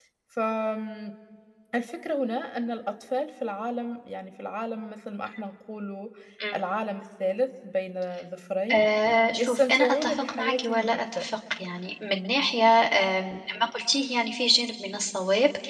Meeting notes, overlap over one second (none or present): present